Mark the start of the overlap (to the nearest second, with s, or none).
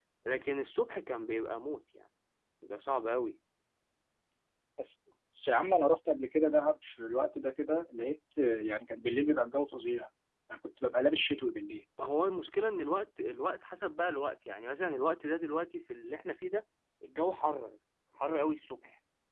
none